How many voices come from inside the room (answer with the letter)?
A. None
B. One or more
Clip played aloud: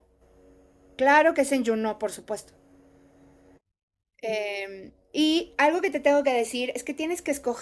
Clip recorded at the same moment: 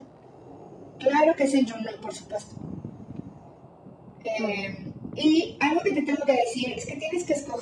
B